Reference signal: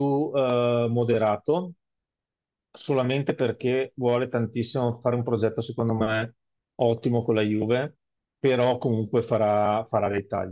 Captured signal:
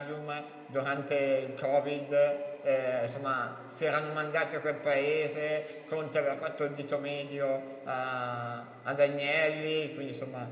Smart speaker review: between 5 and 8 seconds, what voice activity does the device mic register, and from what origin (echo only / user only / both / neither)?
user only